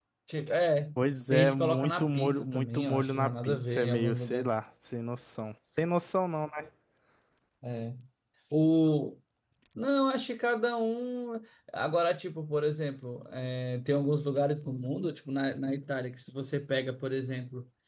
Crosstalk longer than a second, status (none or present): present